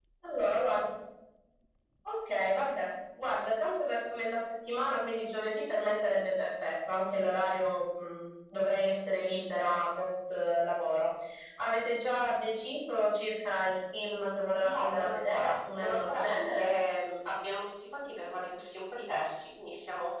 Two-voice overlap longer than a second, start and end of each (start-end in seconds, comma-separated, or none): 14.6-16.7